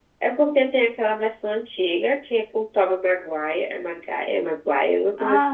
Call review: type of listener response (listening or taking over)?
taking over